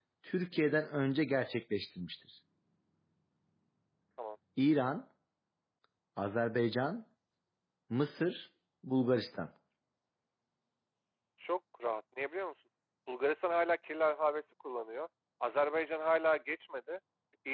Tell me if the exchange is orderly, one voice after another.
Yes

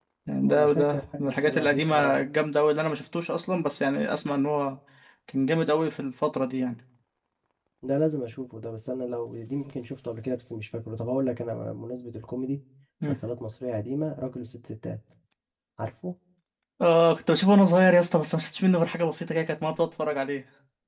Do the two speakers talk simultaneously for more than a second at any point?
Yes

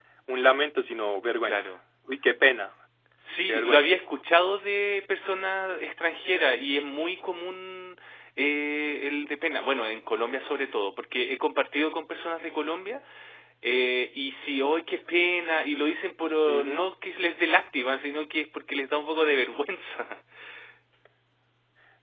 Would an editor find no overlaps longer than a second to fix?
Yes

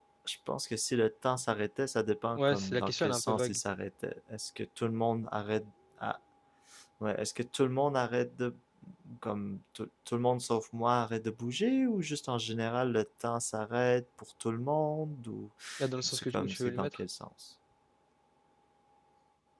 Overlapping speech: Yes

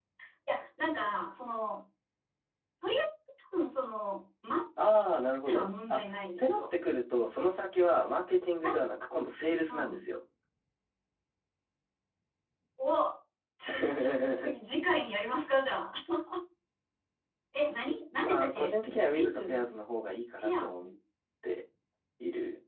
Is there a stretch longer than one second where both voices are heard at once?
Yes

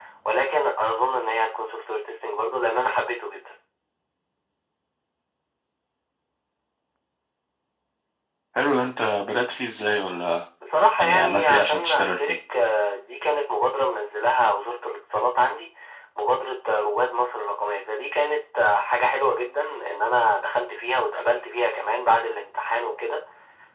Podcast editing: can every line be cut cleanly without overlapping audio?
No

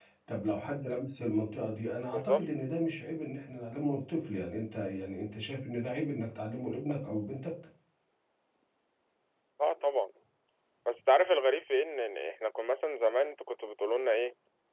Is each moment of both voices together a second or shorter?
Yes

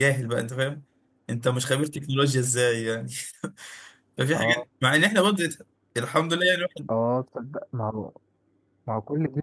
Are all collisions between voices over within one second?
Yes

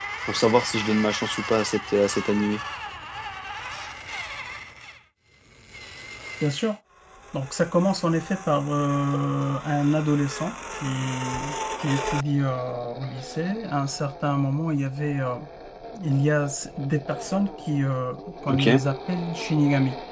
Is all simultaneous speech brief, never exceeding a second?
Yes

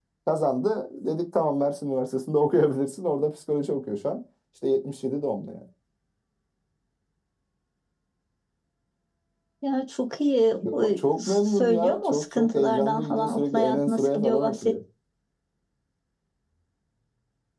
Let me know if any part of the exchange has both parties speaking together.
Yes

